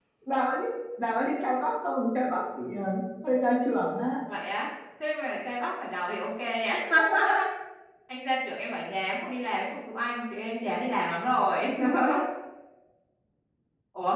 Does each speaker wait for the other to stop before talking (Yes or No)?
Yes